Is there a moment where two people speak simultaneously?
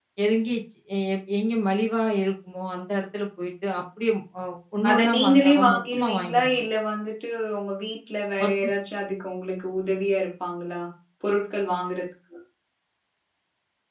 Yes, from 4.9 s

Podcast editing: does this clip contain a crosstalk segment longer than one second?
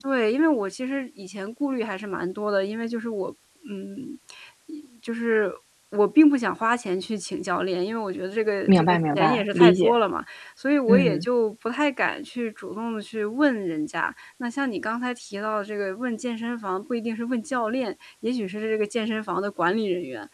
Yes, from 8.7 s

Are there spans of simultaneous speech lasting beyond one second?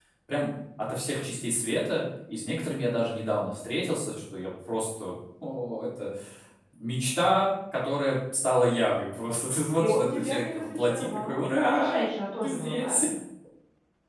Yes, from 9.8 s

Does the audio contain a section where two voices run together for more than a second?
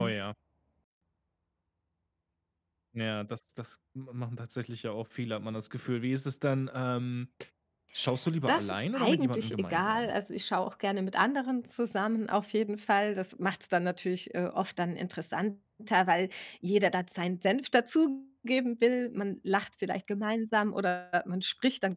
Yes, from 8.5 s

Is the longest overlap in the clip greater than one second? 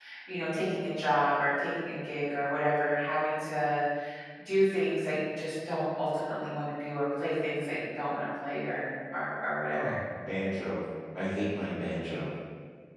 No

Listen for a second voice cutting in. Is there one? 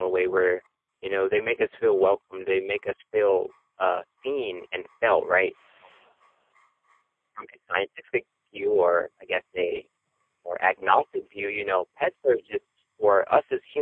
No

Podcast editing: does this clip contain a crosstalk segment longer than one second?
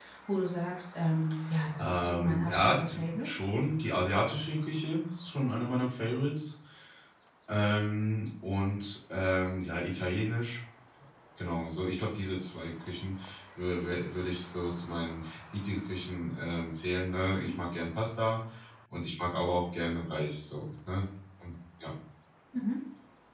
Yes, from 1.8 s

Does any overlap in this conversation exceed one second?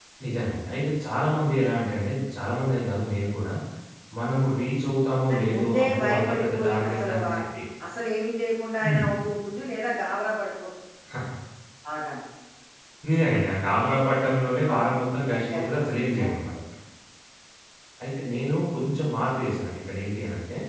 Yes, from 5.3 s

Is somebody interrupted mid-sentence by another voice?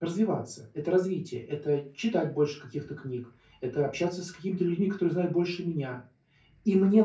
No

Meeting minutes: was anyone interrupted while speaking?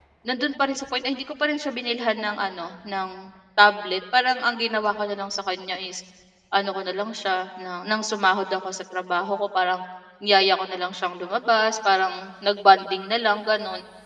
No

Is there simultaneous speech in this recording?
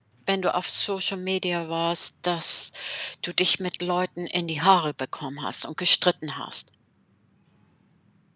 No

